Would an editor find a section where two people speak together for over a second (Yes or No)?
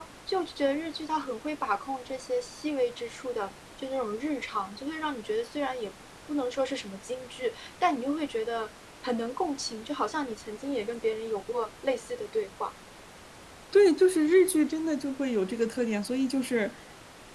No